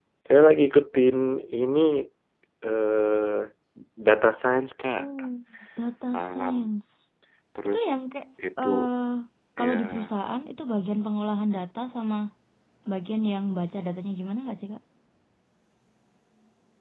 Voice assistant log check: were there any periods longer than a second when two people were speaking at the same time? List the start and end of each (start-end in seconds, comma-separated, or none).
none